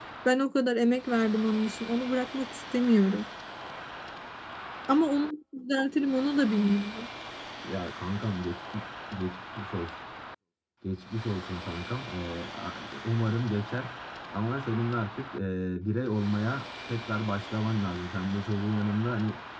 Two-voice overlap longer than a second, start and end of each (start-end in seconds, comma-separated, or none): none